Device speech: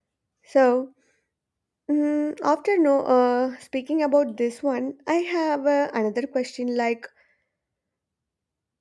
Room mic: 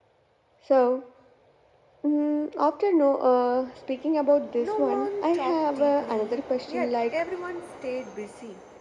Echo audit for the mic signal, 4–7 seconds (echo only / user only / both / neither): both